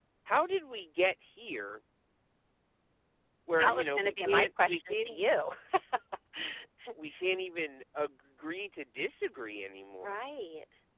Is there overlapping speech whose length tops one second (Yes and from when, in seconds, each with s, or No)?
Yes, from 3.6 s